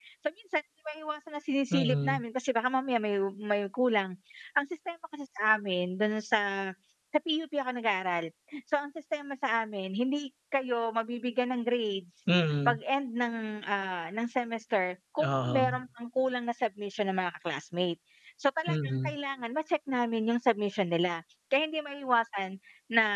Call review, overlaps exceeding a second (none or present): none